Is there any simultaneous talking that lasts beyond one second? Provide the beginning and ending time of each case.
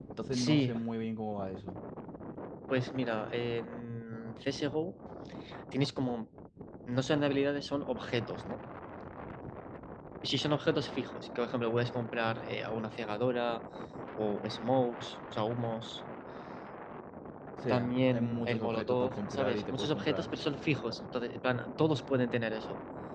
17.7-20.3

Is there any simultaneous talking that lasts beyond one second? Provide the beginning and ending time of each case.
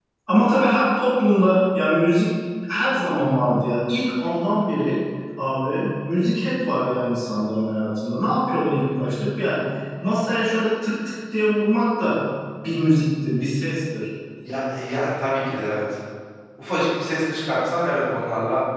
none

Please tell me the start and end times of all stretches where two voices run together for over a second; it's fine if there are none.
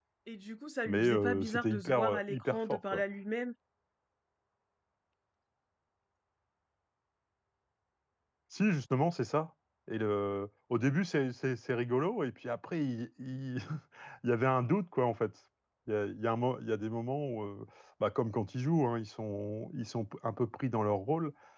0.9-3.0

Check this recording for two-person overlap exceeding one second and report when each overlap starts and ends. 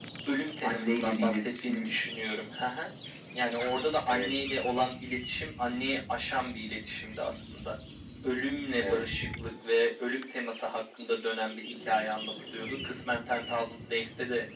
0.6-1.9

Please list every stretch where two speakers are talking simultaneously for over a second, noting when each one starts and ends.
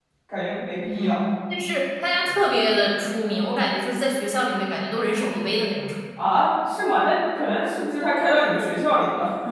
none

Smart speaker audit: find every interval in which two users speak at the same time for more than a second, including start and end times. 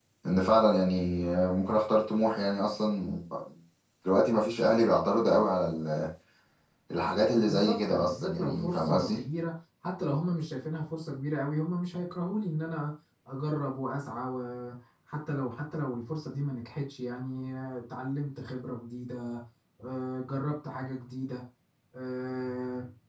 7.5-9.2

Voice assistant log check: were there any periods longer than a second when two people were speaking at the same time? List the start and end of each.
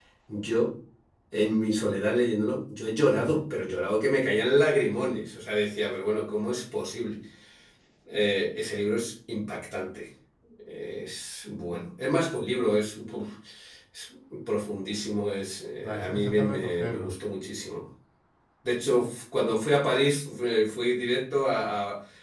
15.8-17.1

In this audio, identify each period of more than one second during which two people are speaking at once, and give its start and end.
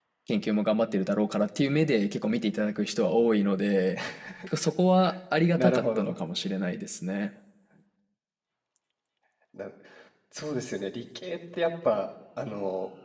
none

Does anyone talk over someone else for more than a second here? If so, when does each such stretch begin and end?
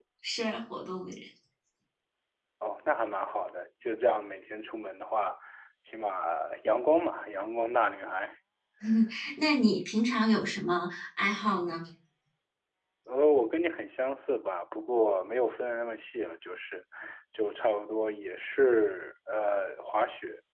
none

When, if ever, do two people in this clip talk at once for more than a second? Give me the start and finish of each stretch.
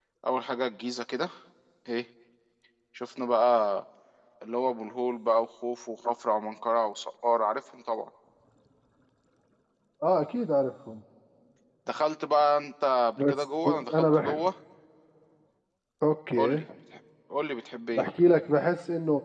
13.2-14.4

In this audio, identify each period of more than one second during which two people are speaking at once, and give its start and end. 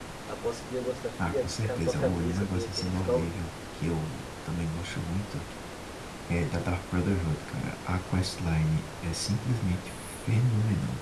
1.2-3.5

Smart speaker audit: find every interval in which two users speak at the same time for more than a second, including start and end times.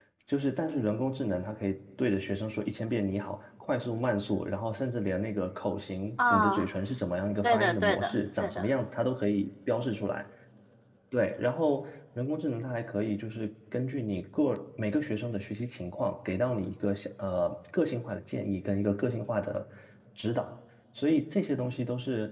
7.4-8.7

